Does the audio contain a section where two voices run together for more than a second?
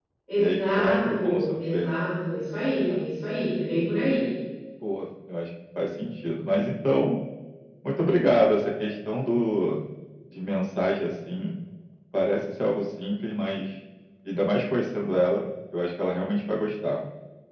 Yes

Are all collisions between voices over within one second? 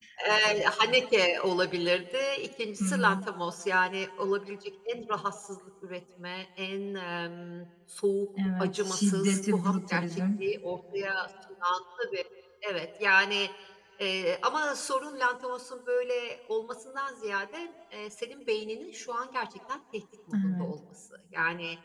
No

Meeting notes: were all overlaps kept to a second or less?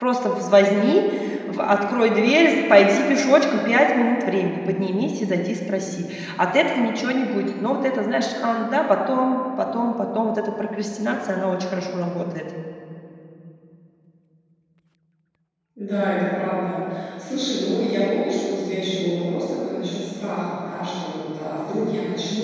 Yes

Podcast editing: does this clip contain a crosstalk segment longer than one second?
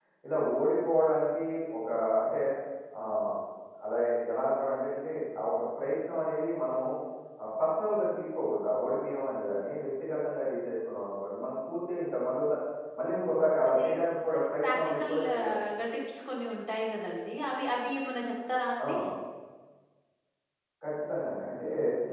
Yes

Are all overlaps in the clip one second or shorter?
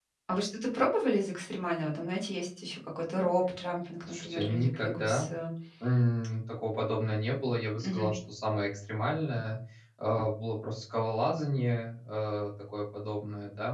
No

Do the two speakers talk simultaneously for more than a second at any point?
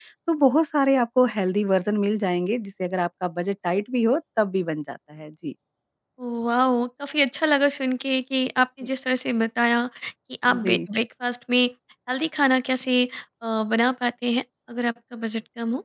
No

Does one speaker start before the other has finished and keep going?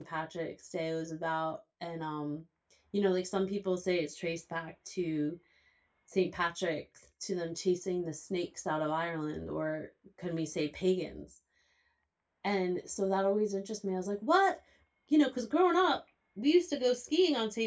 No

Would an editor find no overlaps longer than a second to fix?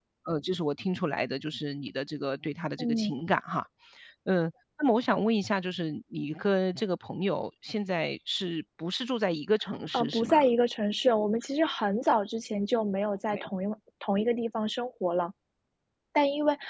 Yes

